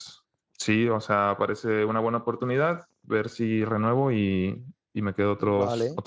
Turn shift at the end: Yes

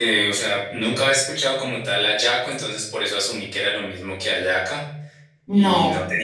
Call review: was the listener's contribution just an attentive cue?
Yes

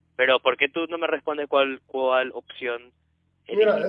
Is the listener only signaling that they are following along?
No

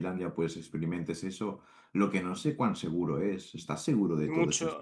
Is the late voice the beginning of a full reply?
Yes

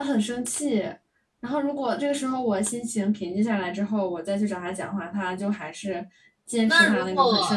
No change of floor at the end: No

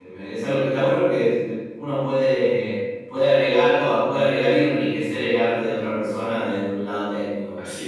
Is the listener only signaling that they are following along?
No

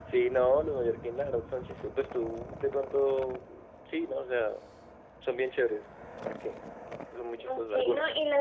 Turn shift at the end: Yes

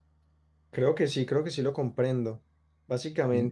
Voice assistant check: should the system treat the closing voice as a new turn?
No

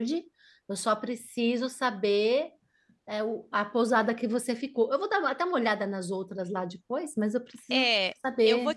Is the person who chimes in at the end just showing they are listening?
No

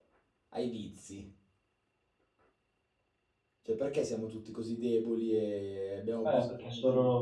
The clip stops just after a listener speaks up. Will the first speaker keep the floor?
No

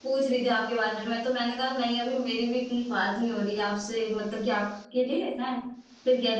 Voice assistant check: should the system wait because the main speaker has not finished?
Yes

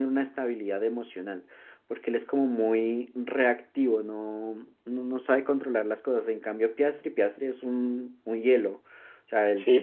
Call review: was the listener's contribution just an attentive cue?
No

